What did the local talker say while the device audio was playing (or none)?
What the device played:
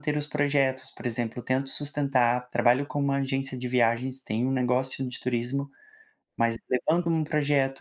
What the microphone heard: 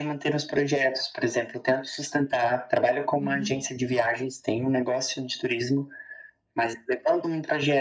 Uhum,